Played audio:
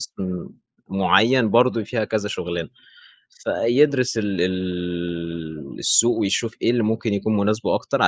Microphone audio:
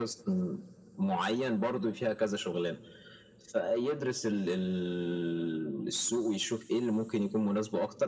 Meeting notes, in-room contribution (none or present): none